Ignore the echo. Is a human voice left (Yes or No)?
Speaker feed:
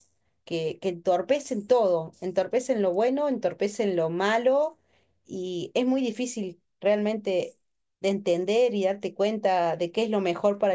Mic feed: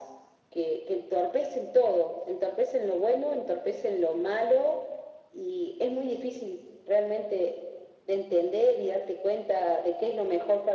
No